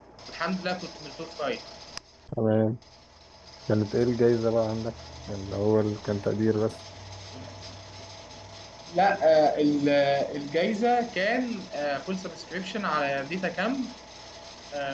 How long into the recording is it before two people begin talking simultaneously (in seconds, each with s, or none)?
none